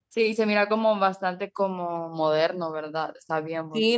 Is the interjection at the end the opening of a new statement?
Yes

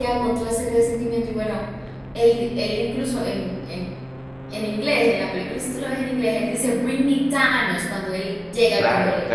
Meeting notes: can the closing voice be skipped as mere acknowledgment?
No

